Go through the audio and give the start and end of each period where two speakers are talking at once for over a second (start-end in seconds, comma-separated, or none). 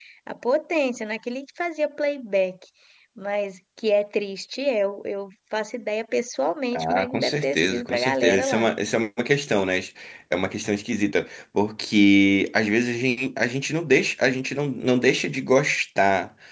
6.7-8.7